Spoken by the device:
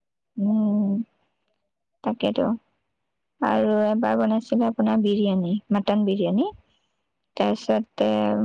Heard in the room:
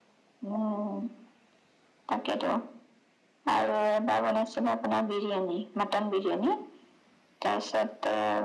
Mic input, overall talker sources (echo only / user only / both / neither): echo only